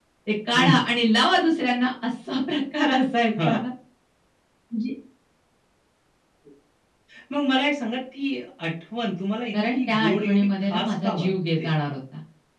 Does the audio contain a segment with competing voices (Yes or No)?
Yes